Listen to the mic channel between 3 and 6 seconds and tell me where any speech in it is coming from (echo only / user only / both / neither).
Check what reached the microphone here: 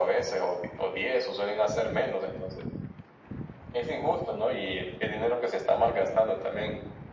echo only